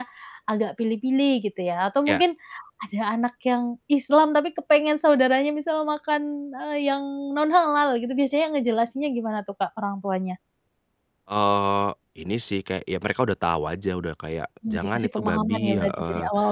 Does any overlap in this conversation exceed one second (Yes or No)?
Yes